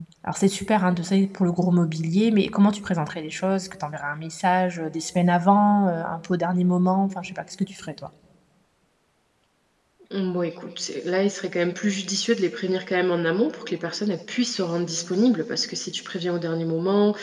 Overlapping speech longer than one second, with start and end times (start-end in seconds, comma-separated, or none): none